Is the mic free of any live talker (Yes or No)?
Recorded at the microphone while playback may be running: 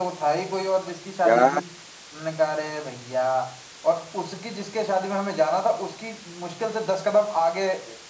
No